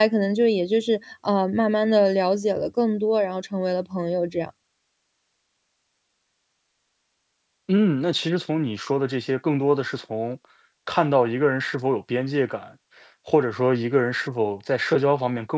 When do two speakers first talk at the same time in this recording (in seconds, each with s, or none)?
none